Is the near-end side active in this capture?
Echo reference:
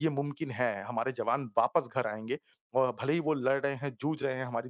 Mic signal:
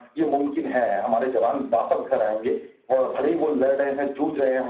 No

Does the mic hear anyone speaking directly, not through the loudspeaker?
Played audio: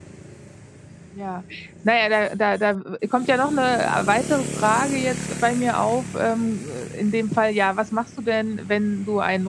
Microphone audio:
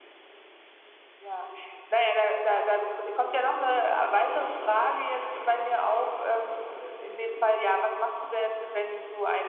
No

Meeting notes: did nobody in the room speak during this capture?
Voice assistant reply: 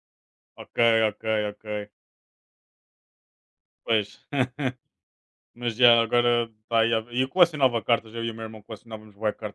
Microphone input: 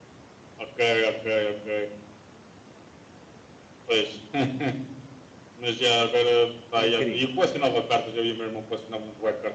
No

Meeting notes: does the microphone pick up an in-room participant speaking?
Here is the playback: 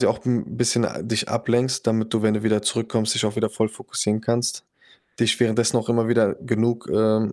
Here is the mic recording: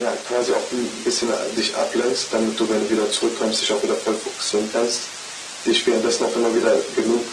No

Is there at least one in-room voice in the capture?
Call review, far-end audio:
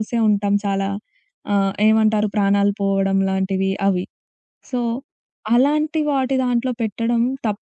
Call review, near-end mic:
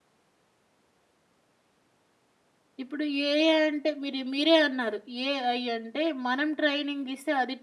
Yes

